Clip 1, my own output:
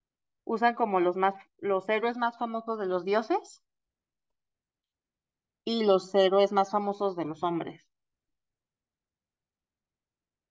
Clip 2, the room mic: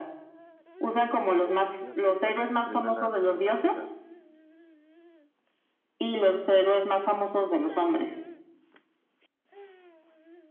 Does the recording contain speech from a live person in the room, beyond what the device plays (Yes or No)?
Yes